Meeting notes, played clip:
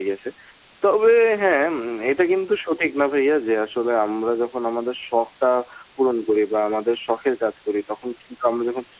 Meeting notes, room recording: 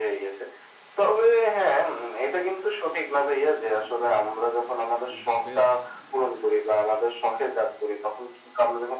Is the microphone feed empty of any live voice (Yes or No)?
No